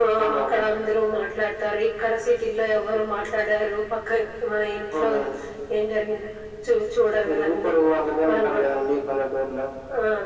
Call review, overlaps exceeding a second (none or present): none